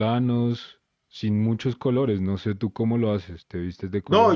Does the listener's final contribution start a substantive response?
Yes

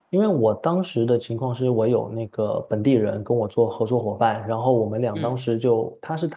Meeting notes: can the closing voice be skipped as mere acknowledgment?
Yes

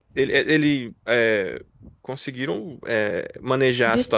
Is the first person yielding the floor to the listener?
No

